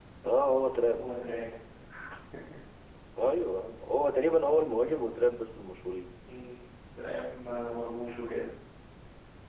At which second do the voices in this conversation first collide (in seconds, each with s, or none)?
none